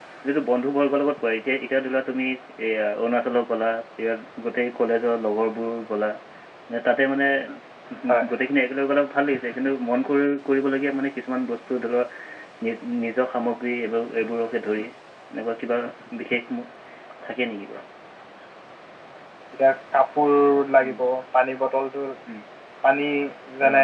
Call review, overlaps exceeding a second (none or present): none